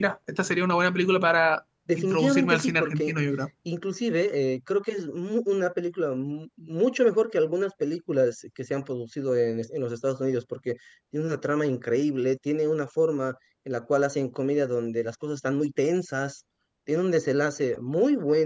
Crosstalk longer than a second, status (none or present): present